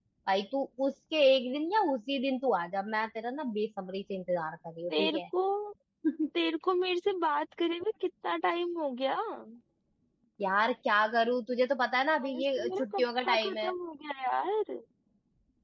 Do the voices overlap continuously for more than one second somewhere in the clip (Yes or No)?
Yes